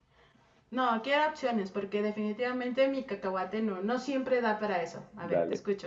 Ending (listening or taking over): taking over